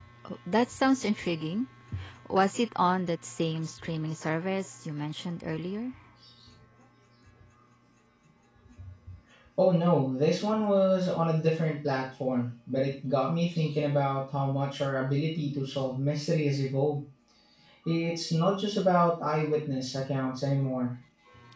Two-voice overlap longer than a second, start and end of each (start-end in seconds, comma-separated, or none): none